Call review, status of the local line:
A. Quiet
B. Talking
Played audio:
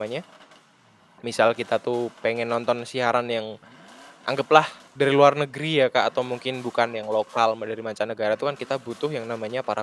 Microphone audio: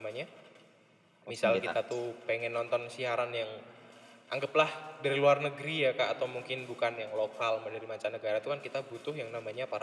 B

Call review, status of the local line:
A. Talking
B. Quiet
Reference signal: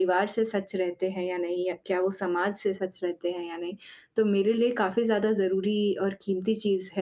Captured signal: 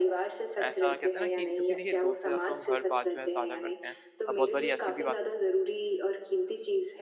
A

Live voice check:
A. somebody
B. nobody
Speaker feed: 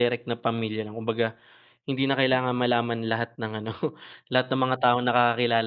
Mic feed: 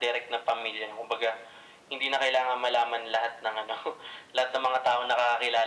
B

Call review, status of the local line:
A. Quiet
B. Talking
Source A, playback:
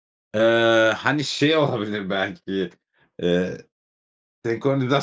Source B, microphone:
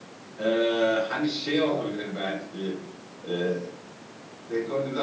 A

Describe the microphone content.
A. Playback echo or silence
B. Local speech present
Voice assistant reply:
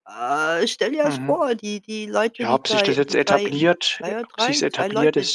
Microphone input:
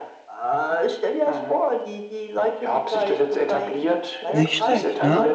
B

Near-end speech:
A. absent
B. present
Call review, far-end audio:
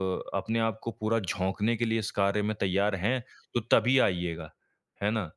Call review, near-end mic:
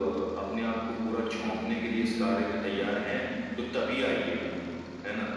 A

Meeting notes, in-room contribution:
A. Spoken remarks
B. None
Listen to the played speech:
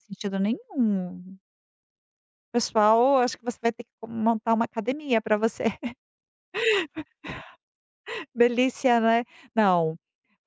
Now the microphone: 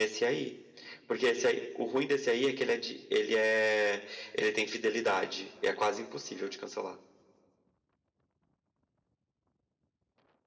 A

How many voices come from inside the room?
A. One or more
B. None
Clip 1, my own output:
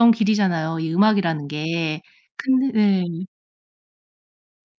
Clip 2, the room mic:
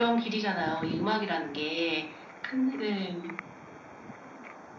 B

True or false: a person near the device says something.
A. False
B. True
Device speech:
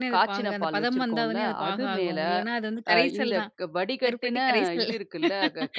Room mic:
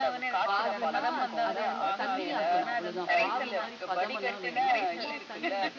B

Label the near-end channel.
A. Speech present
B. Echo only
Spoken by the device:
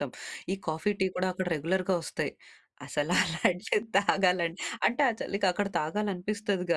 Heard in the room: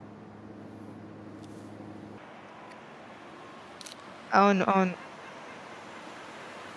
A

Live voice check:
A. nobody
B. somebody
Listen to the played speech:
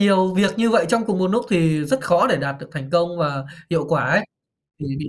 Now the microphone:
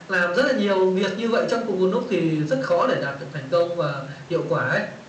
A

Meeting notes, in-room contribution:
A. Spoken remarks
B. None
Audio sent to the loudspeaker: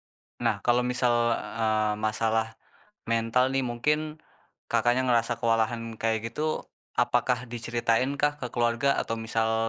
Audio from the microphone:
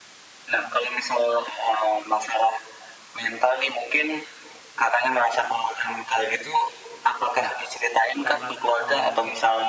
A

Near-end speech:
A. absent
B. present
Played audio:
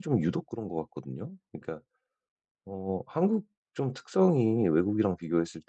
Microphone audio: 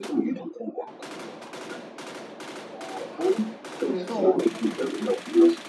B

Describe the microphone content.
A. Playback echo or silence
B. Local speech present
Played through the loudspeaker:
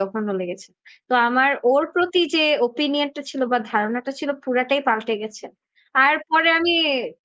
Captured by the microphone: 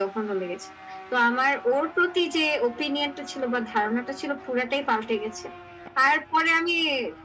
A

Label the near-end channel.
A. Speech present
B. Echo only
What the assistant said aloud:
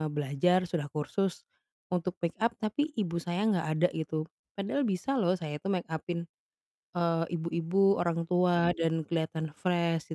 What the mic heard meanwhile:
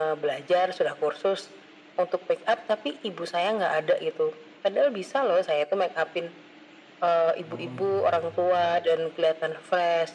A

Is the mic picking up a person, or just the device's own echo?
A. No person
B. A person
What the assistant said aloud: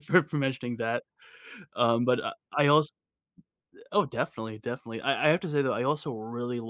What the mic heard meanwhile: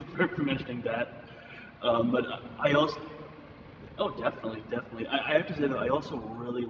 A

